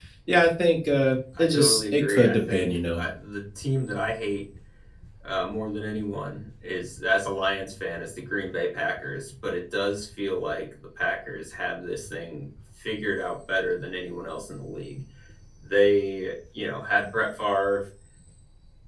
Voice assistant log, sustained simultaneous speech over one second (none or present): present